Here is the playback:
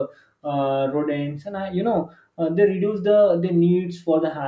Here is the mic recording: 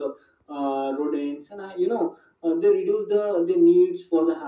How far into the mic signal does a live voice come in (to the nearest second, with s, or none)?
none